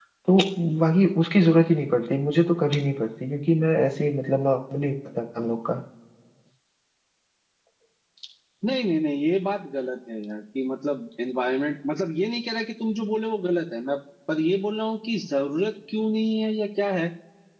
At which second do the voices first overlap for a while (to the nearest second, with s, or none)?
none